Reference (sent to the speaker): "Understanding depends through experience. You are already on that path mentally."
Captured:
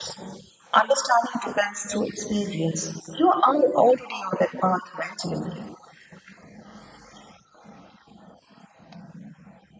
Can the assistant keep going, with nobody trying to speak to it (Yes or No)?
Yes